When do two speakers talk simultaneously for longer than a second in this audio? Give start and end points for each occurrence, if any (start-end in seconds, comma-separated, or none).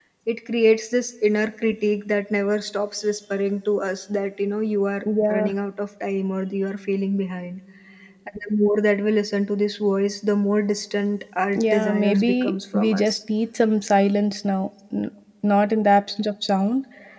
11.6-13.2